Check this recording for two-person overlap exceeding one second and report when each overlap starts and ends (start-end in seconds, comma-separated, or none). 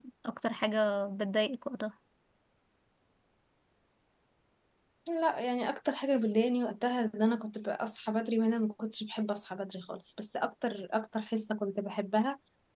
none